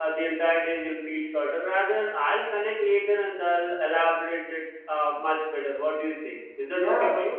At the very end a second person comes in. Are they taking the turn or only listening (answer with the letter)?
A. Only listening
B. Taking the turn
B